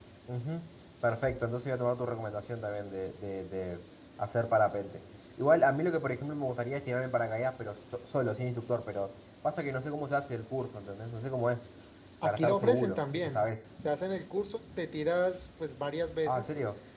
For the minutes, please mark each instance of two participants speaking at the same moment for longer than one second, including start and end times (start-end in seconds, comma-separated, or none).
12.2-13.5